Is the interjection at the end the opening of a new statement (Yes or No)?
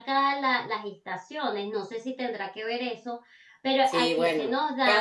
Yes